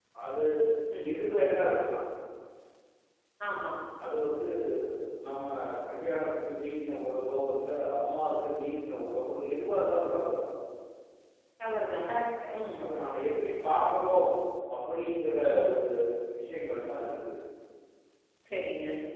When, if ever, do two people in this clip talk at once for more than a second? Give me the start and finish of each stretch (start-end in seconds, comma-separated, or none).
none